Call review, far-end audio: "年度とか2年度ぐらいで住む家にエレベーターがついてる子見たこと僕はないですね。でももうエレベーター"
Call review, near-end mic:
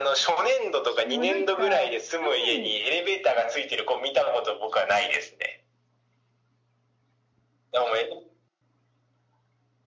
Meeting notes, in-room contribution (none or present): present